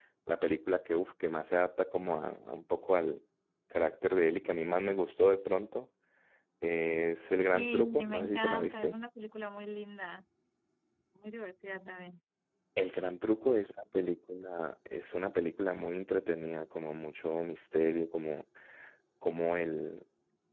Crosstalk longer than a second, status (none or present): present